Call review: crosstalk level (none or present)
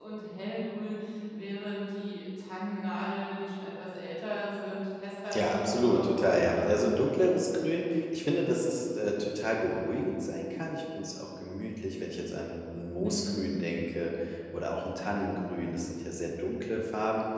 present